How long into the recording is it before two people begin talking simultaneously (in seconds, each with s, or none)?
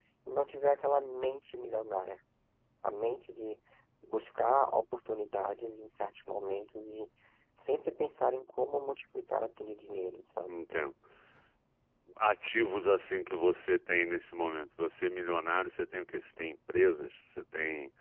none